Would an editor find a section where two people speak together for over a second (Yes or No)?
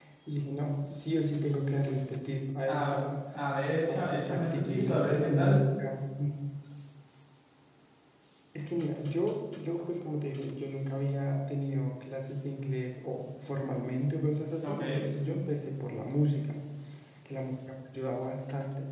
Yes